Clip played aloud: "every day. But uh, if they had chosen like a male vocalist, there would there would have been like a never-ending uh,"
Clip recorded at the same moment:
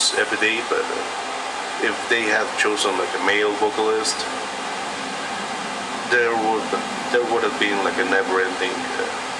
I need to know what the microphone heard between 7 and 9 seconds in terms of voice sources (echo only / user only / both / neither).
echo only